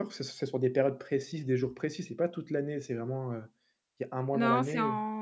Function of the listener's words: taking over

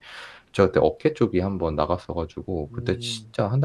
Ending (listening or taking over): listening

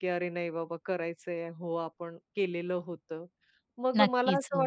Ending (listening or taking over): listening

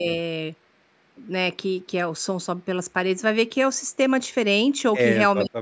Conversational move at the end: listening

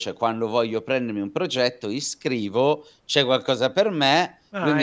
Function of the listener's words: listening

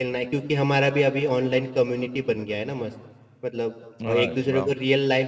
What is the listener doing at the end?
listening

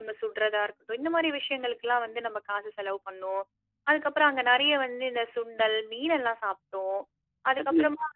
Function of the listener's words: listening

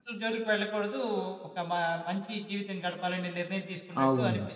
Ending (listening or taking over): taking over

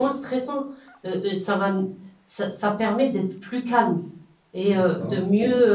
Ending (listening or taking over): listening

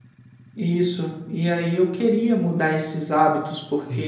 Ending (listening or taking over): listening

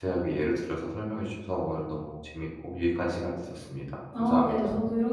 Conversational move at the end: taking over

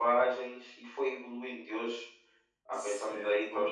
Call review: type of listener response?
taking over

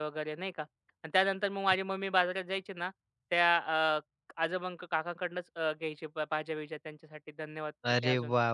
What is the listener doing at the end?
taking over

